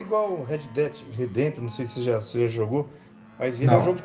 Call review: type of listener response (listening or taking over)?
listening